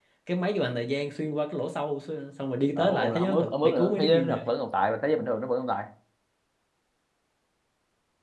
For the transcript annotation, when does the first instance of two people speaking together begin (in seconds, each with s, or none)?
2.8 s